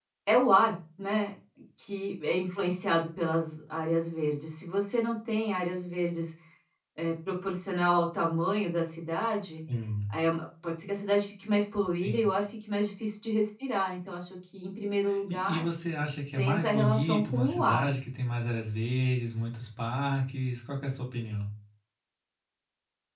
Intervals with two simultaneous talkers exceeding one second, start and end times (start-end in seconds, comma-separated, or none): 16.4-17.9